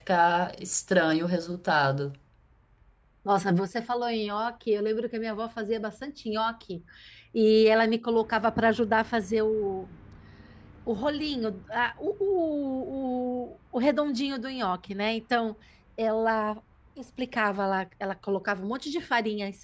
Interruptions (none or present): none